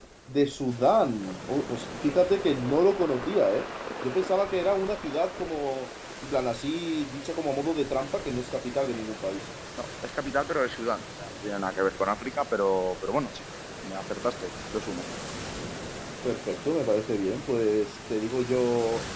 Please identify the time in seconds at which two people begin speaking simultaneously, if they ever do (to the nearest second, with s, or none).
none